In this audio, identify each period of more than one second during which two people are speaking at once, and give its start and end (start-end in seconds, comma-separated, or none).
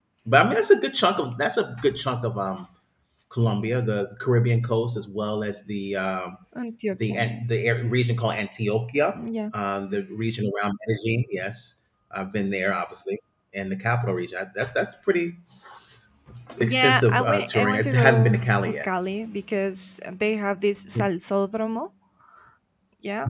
16.6-18.9